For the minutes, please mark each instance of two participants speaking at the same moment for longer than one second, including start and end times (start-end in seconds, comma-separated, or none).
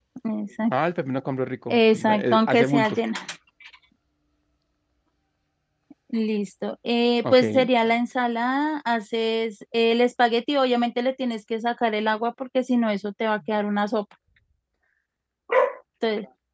1.7-3.0